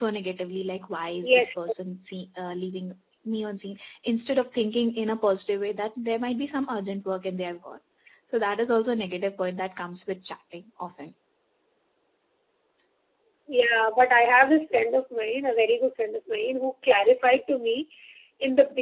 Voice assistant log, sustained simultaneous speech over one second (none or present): none